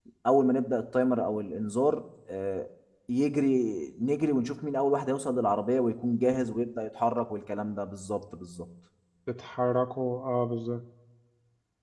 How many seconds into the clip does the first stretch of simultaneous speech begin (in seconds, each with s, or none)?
none